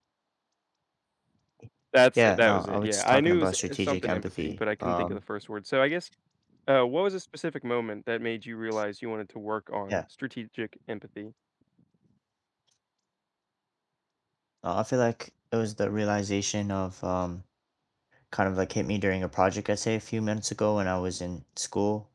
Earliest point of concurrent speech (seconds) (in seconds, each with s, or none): 2.2 s